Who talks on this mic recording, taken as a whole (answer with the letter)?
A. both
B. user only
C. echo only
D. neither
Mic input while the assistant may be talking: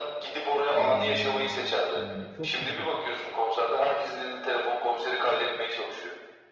A